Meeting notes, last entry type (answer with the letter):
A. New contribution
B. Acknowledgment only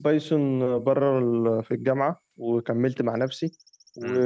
B